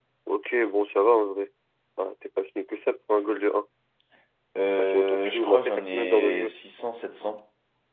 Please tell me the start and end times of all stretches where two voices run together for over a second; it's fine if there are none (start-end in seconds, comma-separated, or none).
4.8-6.5